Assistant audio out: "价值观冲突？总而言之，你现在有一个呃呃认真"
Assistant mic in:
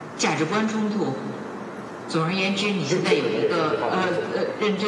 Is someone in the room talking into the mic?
Yes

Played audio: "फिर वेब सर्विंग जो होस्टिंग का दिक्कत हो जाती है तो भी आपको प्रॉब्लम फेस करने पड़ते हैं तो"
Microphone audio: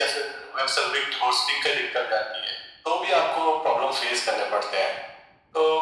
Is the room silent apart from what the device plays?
Yes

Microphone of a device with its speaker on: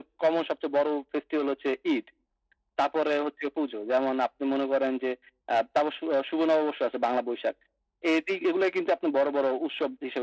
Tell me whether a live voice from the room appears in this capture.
No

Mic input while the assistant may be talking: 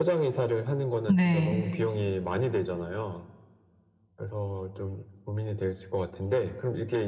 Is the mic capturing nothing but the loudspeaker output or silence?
No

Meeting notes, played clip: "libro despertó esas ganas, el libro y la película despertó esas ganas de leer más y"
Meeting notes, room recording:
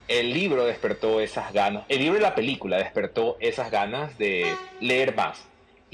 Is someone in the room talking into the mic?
No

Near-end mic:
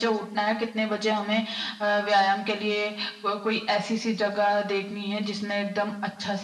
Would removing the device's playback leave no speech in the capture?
Yes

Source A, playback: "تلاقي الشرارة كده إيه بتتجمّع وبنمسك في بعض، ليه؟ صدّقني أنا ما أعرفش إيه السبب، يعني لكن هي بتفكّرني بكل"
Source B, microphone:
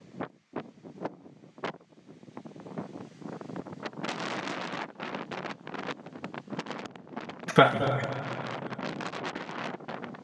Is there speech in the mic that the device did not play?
Yes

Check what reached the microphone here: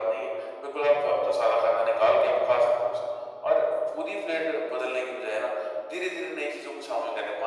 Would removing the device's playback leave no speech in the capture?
Yes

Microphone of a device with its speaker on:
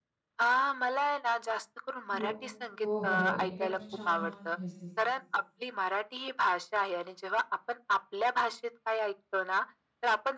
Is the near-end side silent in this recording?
No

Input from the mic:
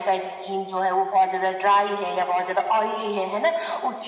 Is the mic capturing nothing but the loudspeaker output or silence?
Yes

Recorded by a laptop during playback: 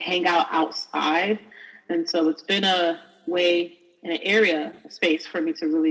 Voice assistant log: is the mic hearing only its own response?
Yes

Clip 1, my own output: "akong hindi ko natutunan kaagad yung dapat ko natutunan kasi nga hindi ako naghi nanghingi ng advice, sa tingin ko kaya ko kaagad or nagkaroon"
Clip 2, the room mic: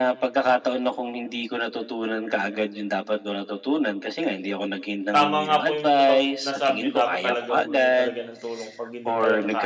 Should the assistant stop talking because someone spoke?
Yes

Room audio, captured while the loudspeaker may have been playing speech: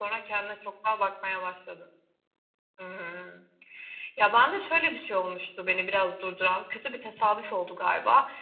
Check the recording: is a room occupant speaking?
Yes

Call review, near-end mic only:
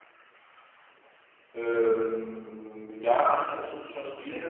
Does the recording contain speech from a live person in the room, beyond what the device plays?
Yes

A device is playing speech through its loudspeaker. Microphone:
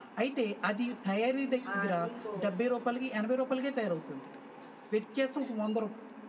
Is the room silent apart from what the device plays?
No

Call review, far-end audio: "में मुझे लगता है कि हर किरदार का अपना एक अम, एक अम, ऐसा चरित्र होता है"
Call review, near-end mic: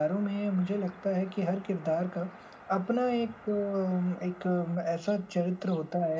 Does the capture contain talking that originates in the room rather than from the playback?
No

